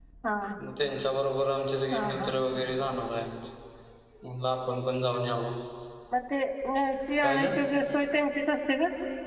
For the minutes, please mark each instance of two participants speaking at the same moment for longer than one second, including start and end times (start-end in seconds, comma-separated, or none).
none